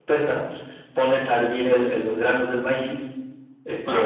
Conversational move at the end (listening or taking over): taking over